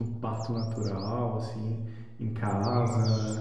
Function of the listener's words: listening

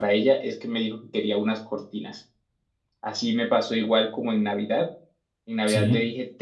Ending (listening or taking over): listening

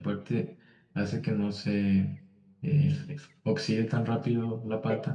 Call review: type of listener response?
taking over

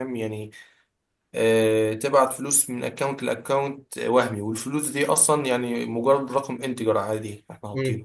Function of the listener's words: taking over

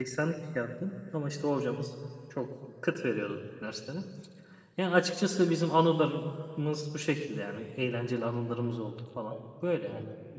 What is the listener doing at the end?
taking over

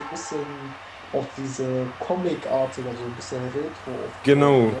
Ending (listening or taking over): taking over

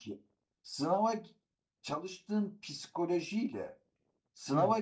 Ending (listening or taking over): listening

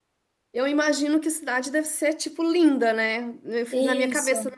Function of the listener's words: listening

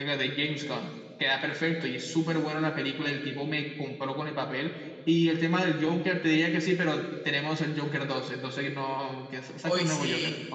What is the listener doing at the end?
taking over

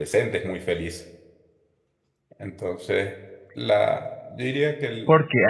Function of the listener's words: taking over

